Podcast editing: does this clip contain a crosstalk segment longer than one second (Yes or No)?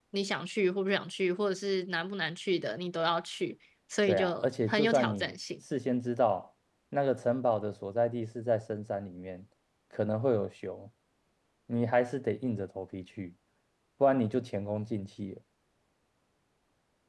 Yes